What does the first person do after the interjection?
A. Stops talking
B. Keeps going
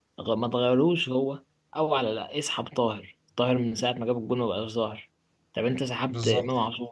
B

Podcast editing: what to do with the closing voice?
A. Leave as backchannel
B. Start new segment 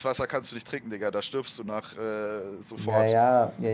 B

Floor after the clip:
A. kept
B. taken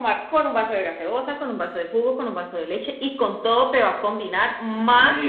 B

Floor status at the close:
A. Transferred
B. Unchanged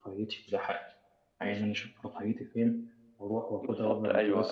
A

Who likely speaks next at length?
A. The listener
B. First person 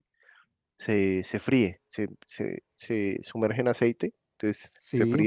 B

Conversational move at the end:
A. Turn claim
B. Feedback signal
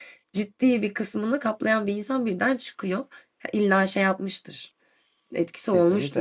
A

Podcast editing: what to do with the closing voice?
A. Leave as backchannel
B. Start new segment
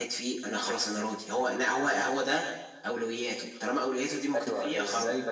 B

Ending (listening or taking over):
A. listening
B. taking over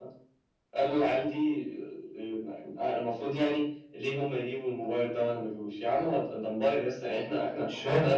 A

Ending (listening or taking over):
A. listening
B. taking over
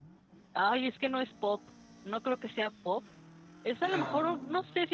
A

